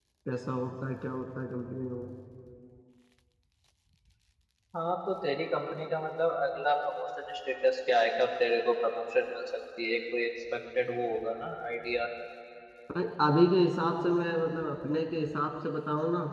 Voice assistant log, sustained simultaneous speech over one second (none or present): none